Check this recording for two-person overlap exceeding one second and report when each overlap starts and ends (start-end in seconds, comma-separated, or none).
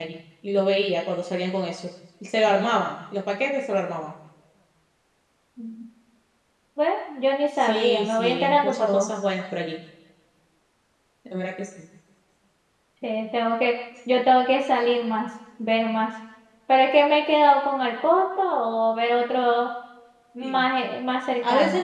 7.6-9.1